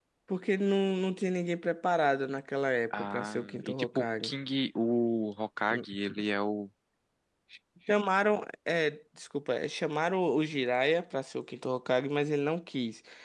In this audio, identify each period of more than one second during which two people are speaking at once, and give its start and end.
2.9-4.4

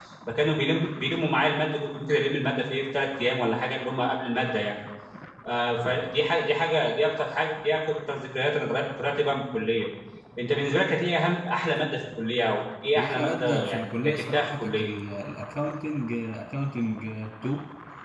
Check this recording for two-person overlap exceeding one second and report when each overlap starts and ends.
13.0-14.9

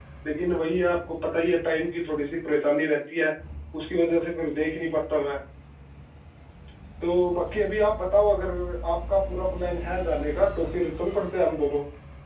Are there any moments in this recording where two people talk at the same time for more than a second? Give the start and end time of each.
none

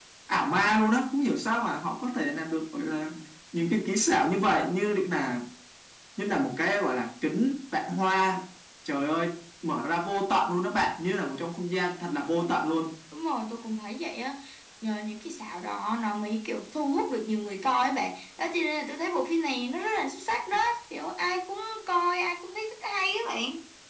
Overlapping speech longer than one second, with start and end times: none

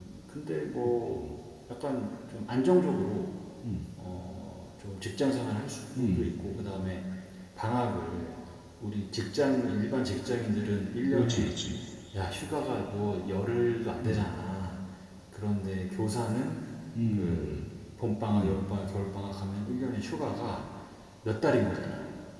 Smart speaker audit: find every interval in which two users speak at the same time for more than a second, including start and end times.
none

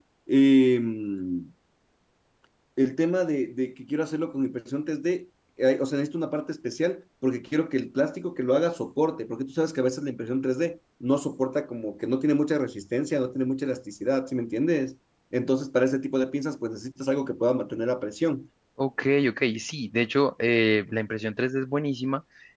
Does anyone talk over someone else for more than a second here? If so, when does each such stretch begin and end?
none

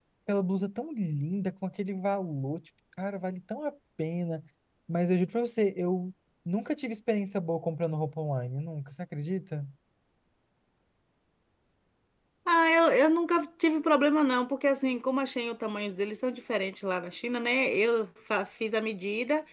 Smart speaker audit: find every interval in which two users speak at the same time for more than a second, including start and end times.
none

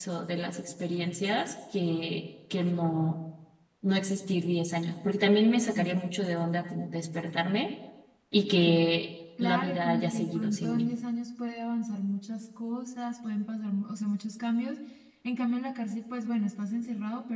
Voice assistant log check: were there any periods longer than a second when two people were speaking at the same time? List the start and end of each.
9.4-10.9

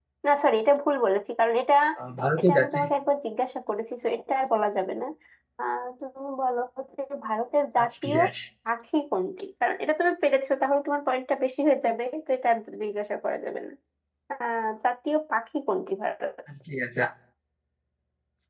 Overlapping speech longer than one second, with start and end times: none

